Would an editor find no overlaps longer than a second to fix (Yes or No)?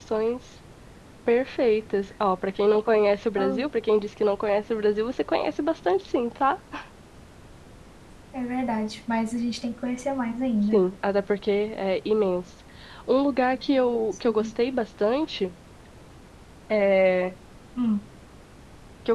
Yes